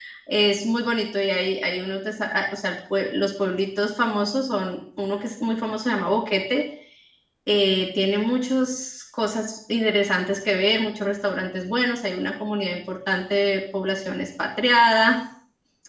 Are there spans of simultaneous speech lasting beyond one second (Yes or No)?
No